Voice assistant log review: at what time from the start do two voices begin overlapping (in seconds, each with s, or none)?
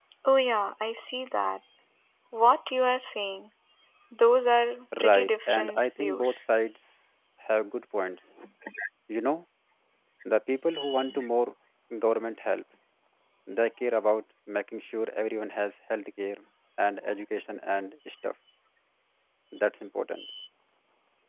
5.0 s